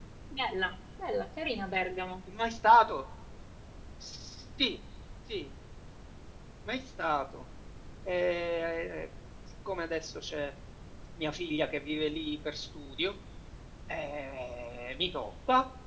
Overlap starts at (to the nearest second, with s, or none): none